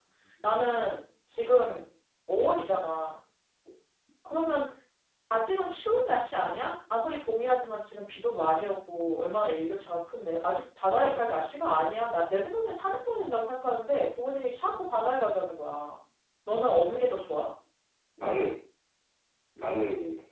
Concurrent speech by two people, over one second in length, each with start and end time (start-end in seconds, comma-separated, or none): none